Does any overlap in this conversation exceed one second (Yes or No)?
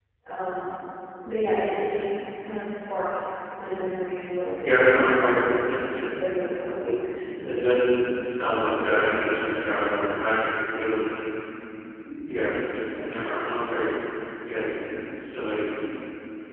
No